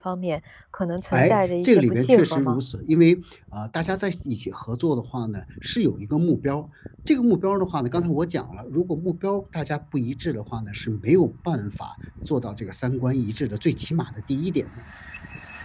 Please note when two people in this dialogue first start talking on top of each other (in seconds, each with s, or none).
1.1 s